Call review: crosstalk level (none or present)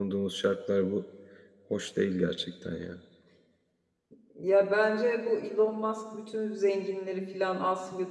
none